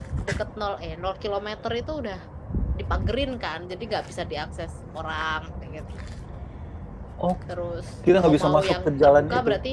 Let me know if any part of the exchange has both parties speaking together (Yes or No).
Yes